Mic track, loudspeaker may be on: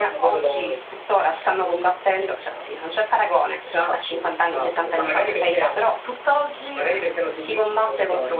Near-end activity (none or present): none